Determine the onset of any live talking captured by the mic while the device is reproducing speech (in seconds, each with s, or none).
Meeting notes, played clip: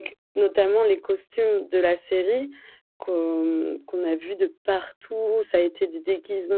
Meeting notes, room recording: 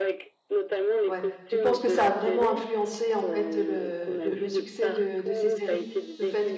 1.1 s